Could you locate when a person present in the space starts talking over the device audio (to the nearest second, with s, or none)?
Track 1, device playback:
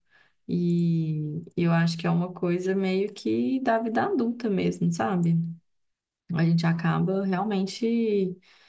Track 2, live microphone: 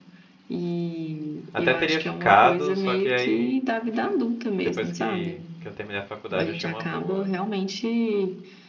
2 s